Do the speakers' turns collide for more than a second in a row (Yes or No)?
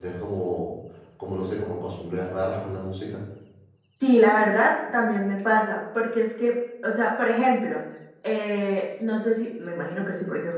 No